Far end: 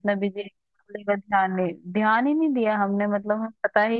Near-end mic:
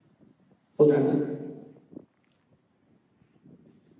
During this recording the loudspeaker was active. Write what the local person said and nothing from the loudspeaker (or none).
पुराने